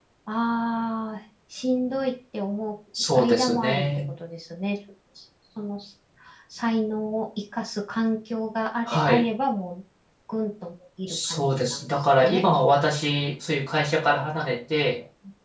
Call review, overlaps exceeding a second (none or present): present